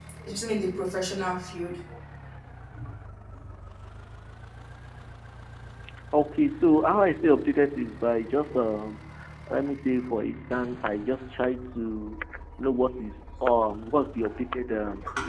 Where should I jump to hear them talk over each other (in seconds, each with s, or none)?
none